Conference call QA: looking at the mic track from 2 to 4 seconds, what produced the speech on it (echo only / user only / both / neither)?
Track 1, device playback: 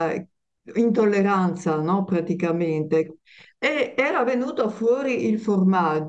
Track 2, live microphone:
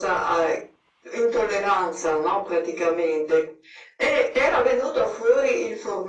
echo only